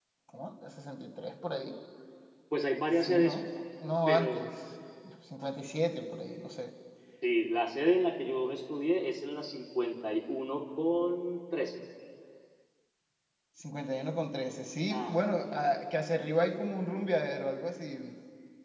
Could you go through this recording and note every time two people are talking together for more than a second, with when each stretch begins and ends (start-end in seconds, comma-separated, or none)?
none